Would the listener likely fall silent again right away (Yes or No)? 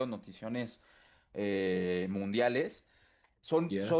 Yes